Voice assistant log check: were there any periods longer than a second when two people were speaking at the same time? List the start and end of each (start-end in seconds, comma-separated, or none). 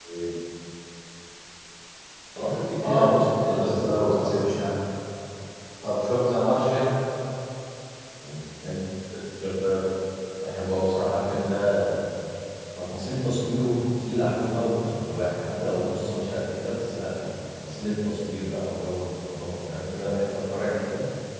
2.8-4.3